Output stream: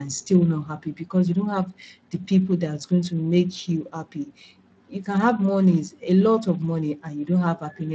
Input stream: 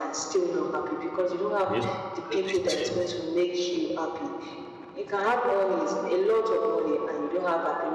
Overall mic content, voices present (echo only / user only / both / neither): both